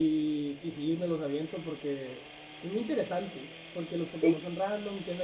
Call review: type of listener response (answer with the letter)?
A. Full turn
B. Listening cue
B